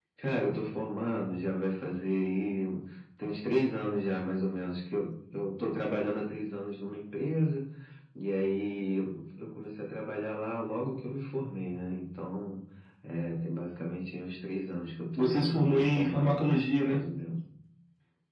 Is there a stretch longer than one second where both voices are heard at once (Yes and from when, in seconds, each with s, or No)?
Yes, from 15.2 s